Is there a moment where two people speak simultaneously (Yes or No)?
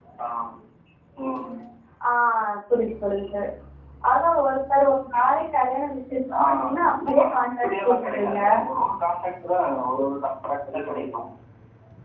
Yes